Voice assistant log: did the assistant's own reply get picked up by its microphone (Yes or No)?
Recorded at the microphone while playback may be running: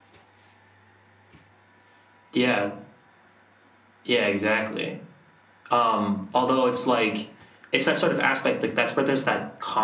Yes